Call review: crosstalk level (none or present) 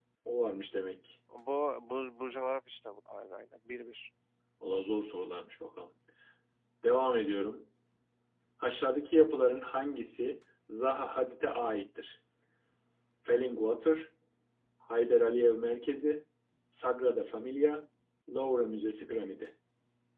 none